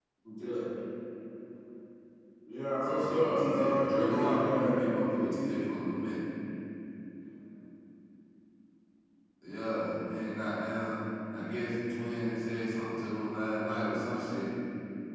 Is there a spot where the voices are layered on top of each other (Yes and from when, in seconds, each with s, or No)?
Yes, from 2.8 s